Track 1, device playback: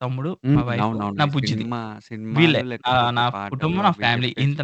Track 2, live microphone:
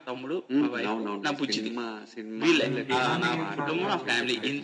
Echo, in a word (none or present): present